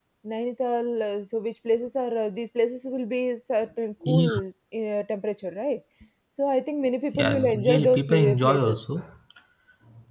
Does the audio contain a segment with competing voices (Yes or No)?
Yes